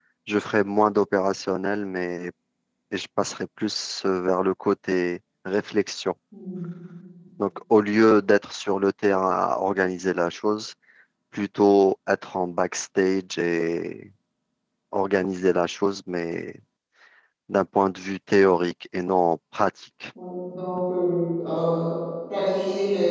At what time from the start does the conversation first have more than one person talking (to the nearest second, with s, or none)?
none